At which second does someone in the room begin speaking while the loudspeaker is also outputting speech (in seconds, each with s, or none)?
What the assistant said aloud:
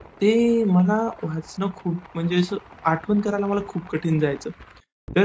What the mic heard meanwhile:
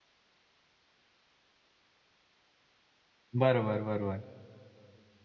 3.3 s